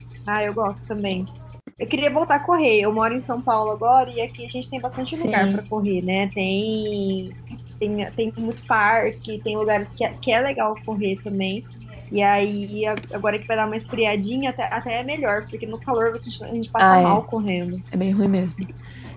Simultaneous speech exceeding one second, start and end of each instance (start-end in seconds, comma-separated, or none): none